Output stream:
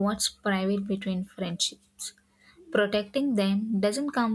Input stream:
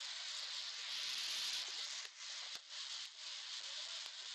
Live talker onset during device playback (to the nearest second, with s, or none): none